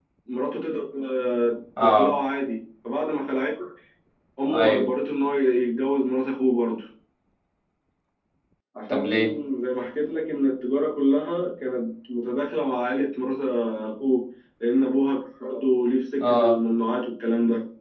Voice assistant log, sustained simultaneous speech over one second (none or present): none